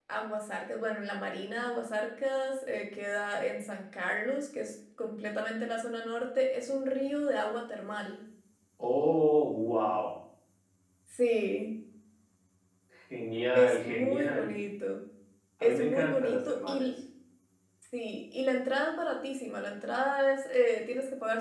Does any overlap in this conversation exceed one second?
Yes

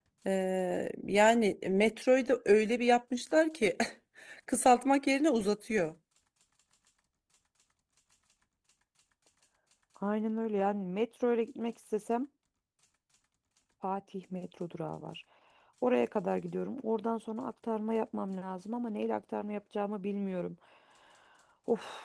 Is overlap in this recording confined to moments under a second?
Yes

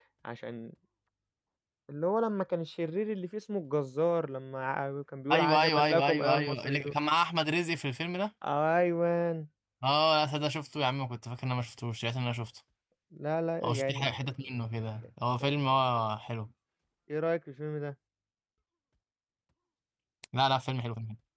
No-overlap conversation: No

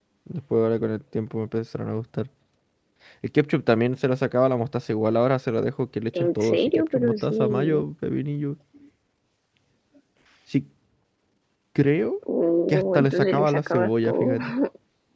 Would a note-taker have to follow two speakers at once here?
Yes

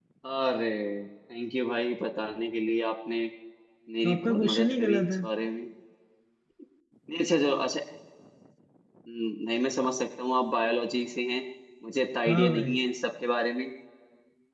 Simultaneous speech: Yes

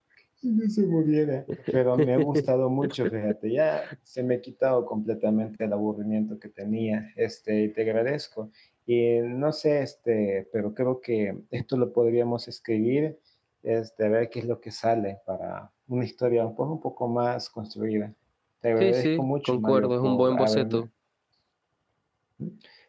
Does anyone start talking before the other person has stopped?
Yes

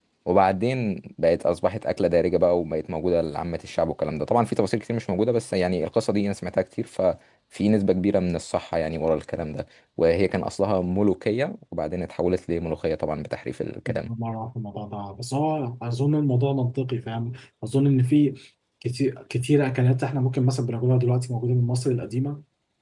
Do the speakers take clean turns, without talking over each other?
Yes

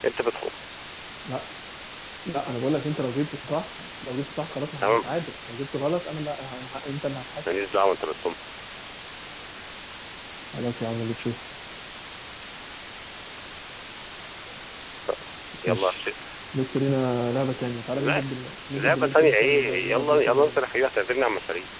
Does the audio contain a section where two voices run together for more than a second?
Yes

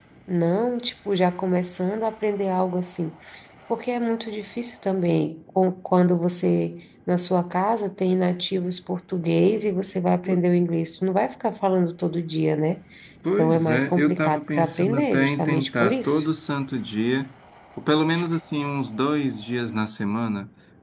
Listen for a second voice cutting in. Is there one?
Yes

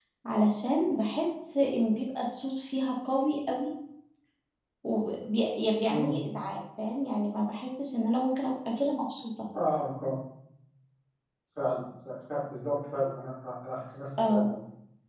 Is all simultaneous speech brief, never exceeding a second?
Yes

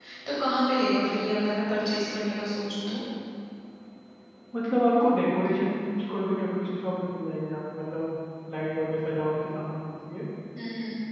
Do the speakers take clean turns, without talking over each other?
Yes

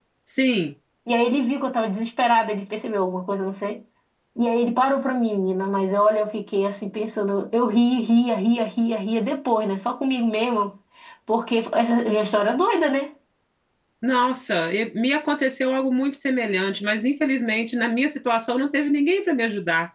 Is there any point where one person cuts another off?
No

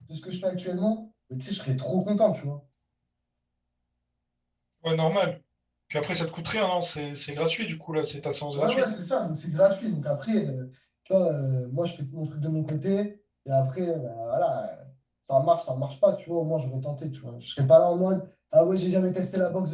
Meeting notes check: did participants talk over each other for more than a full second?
No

